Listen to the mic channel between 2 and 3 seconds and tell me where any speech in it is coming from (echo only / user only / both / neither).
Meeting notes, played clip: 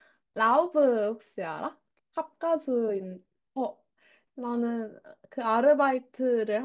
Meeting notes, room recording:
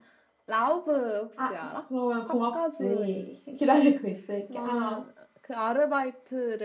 both